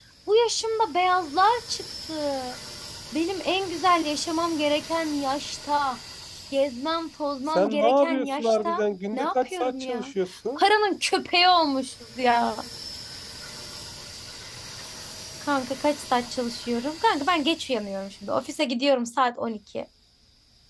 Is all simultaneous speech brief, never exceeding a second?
No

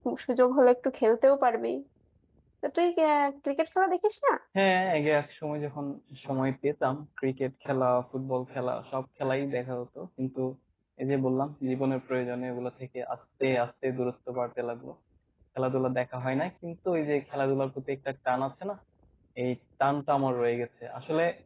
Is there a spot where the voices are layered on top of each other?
No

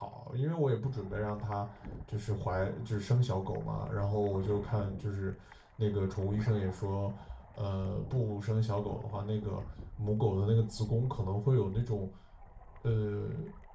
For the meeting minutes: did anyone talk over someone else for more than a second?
No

